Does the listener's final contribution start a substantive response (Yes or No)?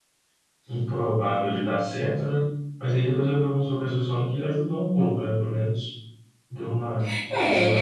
Yes